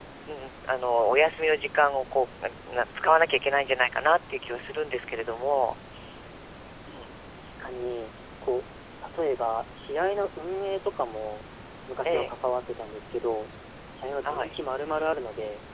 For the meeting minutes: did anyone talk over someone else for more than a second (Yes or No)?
No